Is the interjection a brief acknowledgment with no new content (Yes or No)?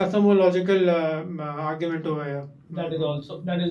No